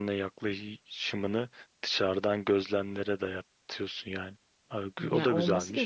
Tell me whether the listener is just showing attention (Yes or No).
No